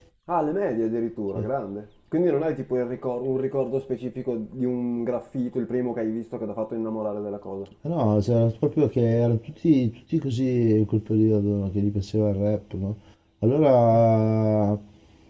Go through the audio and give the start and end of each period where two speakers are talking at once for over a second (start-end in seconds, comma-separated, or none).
none